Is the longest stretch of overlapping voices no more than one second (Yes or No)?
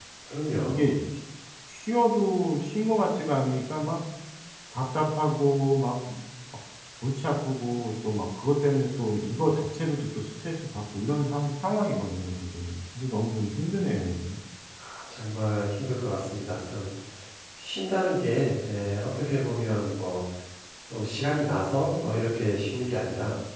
Yes